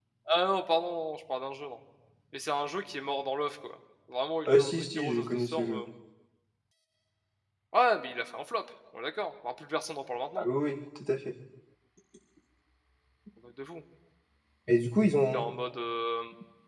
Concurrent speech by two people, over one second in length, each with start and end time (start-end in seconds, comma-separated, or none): 4.5-5.8